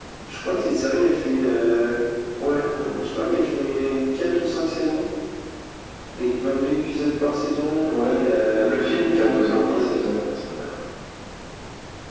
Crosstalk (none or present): present